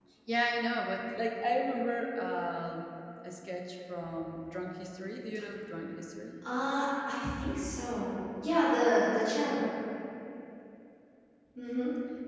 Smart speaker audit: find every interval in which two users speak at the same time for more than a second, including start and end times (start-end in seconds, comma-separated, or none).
none